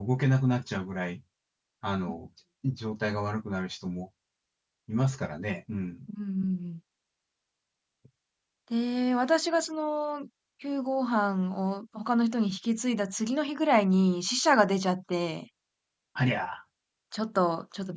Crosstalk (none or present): none